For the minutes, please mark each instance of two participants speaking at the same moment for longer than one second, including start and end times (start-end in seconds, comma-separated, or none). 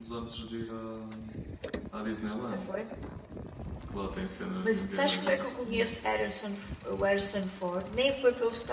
4.6-5.9